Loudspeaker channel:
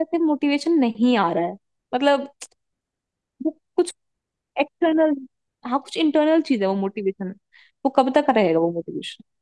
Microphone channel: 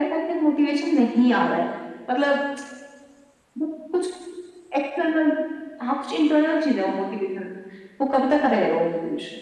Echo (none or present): present